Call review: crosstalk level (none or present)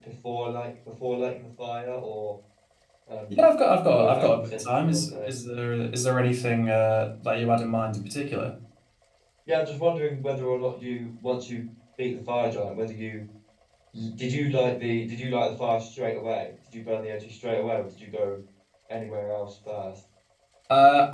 present